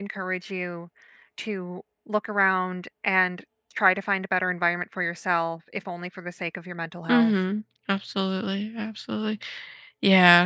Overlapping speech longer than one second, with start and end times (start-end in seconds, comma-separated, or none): none